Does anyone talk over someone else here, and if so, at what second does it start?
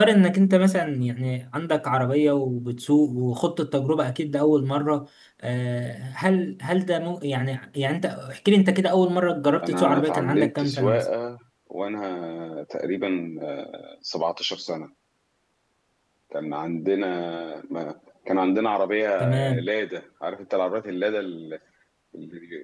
10 s

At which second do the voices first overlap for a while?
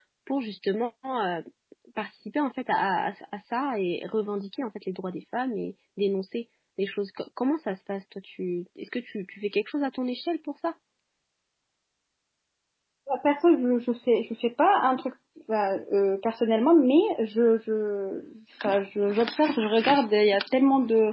none

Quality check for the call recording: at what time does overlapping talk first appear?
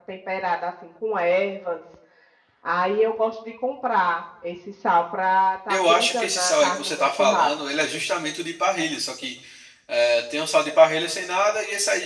6 s

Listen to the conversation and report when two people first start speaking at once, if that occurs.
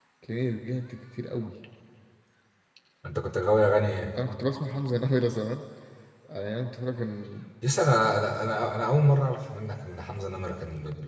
none

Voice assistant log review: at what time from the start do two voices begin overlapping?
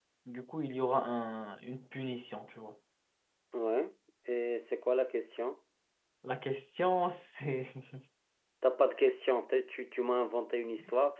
none

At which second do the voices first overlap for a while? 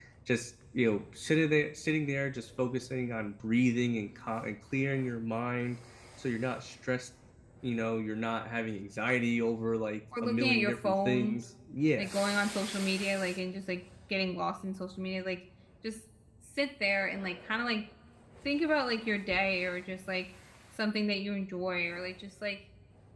10 s

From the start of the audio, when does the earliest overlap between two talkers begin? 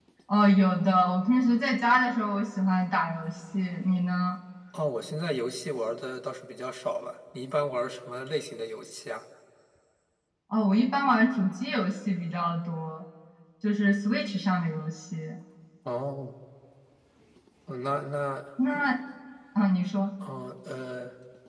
none

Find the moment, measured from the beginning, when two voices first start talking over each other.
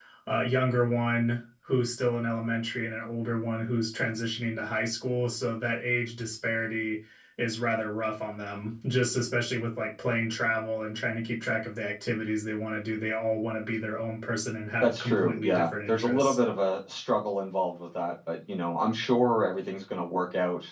15 s

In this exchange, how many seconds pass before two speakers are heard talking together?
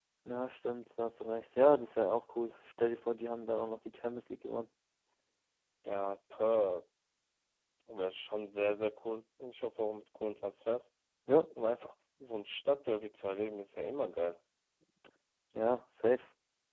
none

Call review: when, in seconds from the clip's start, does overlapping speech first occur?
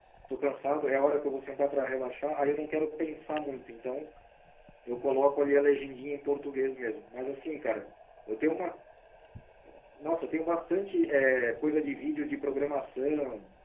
none

